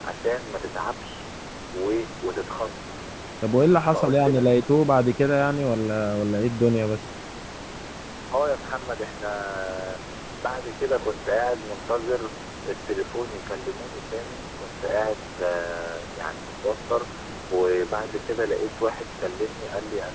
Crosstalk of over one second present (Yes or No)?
No